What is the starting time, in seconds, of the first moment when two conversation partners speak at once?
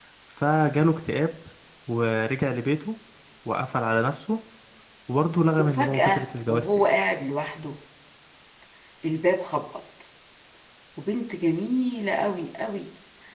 5.6 s

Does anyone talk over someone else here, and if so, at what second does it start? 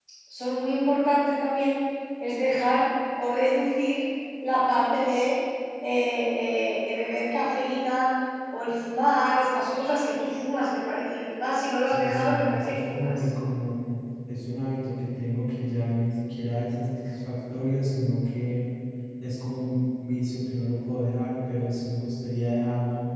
11.9 s

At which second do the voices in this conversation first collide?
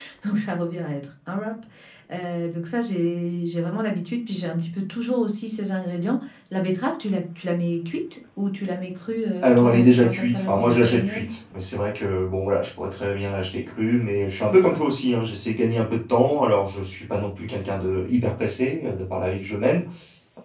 9.4 s

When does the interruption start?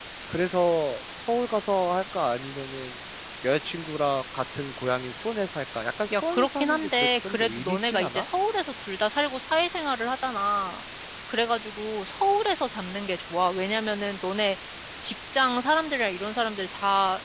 6.1 s

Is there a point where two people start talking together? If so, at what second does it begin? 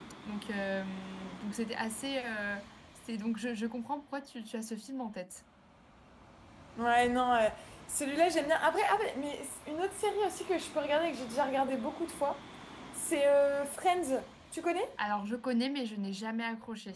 none

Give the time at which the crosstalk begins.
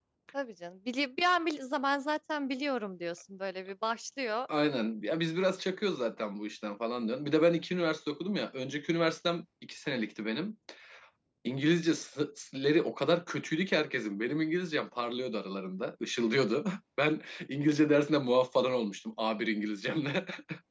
none

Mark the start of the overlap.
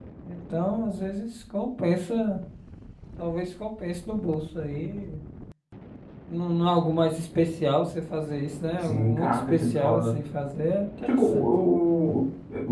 8.8 s

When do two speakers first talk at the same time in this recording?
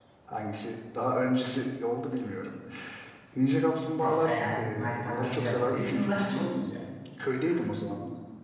4.0 s

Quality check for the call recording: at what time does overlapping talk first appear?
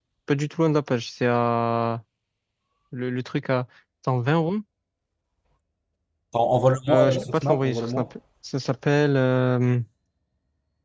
6.9 s

